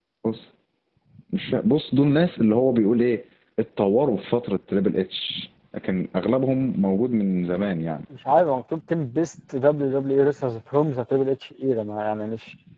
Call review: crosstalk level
none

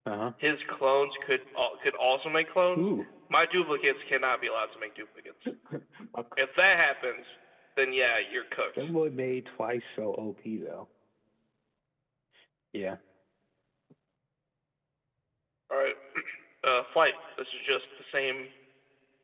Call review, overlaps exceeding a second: none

